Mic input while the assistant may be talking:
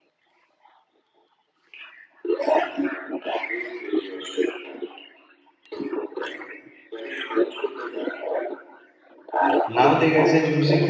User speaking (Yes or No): Yes